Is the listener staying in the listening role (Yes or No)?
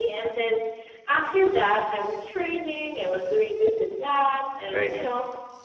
Yes